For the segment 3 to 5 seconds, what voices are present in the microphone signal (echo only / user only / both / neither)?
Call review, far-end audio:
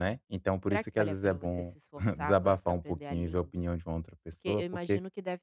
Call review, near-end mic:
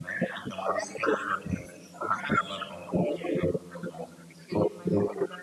echo only